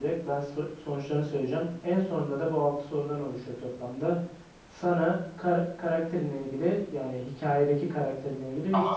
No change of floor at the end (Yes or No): Yes